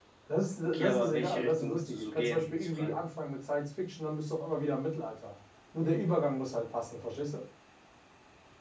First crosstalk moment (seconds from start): 0.7 s

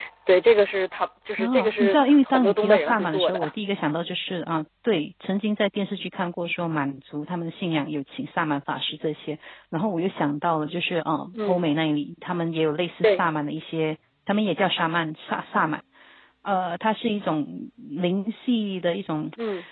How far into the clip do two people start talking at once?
1.4 s

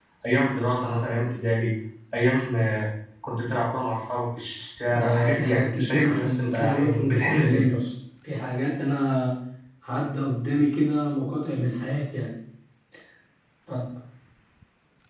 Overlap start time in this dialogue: 4.9 s

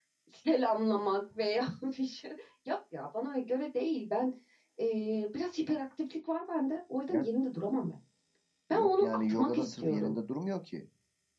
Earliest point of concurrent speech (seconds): 8.7 s

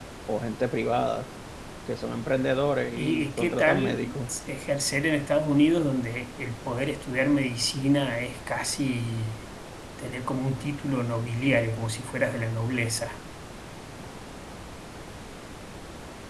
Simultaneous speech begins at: 3.0 s

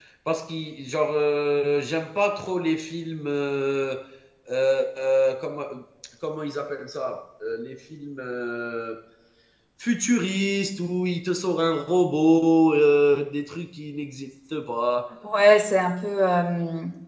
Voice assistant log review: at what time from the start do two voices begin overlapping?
none

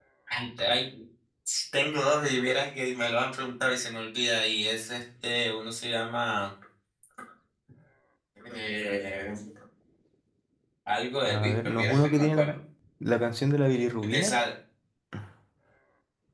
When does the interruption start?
11.2 s

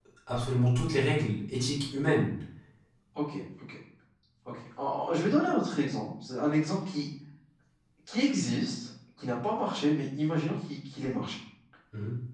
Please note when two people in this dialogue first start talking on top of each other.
none

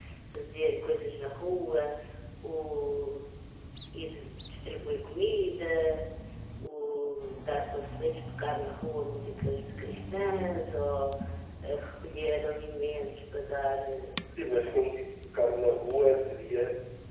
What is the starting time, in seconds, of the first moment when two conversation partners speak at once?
none

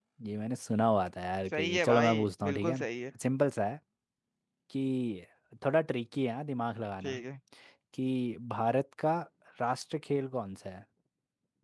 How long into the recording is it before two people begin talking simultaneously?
1.5 s

